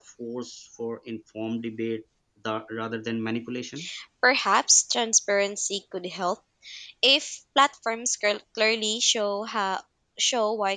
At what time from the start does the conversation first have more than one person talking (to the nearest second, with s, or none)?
none